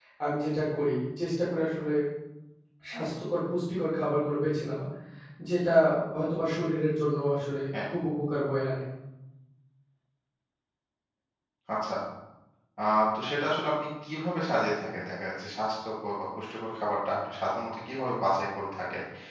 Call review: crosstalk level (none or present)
none